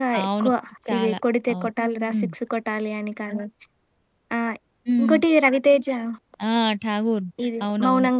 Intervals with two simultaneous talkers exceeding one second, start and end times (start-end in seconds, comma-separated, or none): none